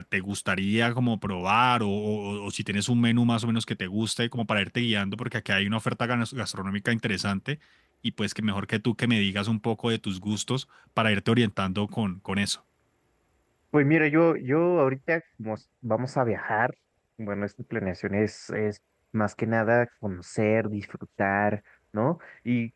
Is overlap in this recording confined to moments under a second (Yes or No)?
Yes